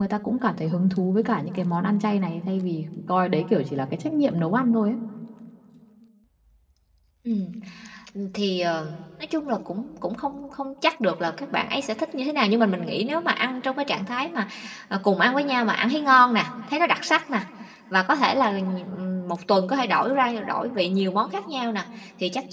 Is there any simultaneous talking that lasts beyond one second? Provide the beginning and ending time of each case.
none

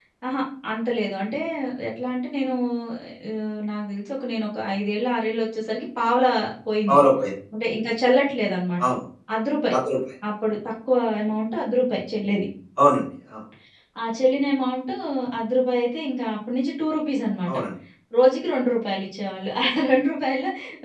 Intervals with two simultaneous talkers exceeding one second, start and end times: none

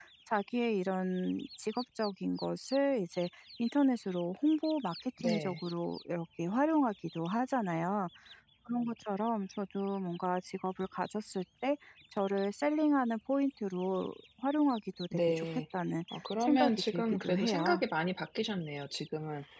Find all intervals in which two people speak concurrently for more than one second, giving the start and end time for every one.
16.4-17.8

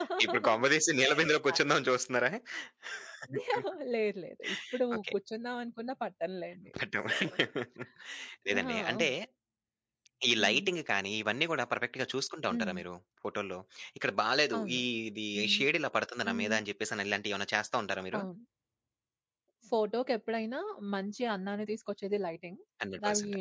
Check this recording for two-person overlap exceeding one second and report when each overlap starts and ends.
none

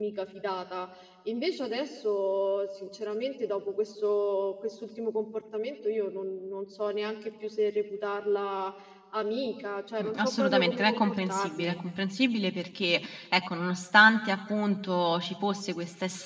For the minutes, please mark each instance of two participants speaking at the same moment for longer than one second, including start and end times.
10.0-11.8

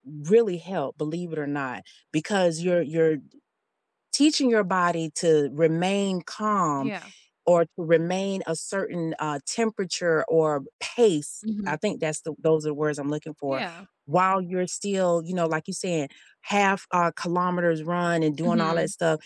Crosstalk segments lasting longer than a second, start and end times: none

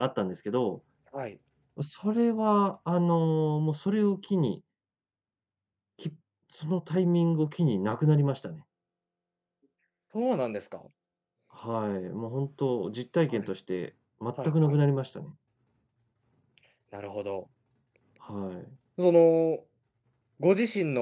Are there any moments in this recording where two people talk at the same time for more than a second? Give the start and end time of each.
none

